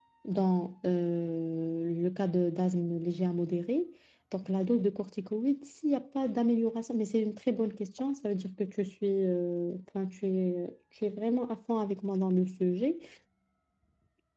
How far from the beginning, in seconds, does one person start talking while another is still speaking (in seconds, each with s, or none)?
none